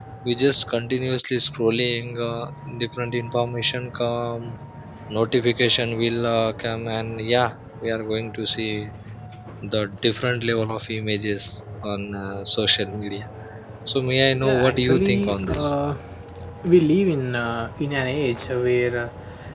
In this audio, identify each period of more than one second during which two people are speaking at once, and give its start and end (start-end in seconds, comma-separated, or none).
14.4-15.7